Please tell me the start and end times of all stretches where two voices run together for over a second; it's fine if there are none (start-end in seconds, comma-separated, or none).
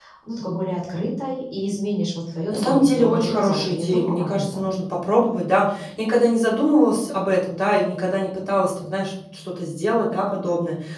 2.5-4.7